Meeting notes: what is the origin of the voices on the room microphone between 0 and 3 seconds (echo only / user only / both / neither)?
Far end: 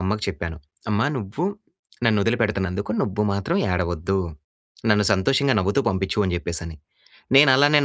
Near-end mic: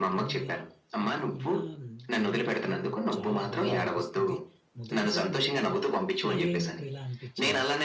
both